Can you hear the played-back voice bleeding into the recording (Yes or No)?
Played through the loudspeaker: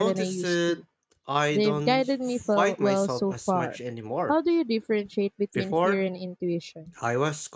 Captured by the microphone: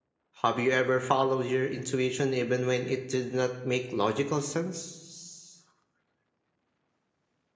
No